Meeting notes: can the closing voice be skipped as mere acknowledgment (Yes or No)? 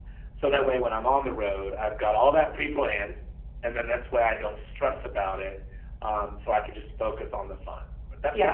No